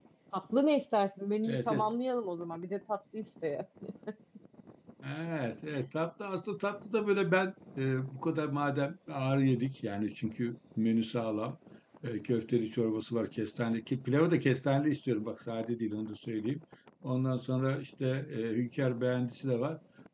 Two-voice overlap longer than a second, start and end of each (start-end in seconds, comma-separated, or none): none